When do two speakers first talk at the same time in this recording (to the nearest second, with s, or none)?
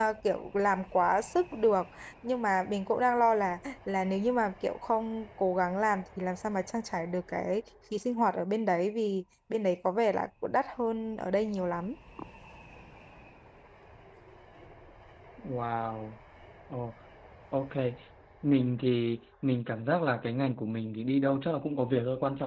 none